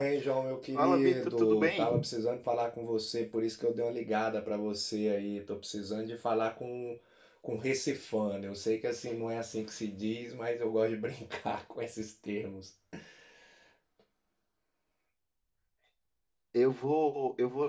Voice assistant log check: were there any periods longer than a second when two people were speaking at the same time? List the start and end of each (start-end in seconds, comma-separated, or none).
0.8-2.1